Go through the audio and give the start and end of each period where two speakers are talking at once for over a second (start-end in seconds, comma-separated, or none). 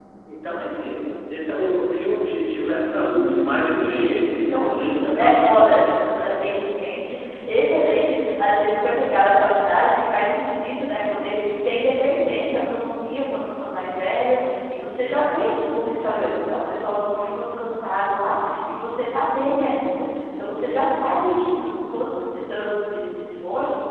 3.1-6.3